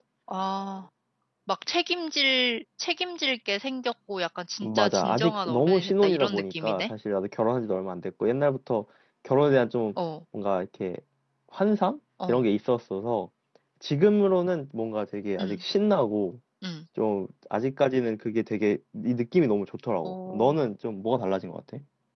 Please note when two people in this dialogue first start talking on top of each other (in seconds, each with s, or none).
4.6 s